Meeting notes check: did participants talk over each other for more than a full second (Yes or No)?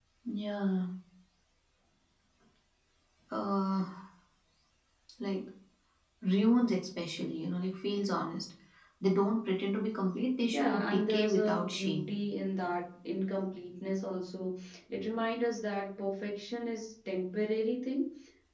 Yes